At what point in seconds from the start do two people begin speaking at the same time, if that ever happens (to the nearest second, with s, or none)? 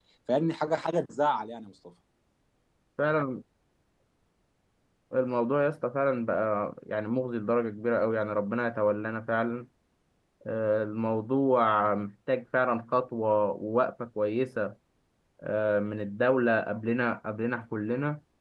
none